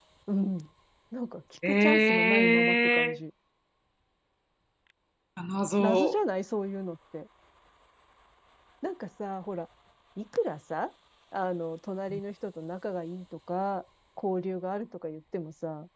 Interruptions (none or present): present